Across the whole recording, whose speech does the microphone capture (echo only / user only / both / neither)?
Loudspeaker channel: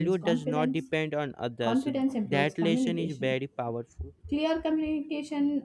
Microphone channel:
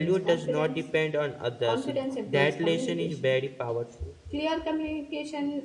echo only